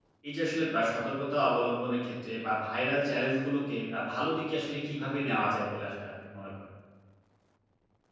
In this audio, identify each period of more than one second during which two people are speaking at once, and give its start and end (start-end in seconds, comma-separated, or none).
none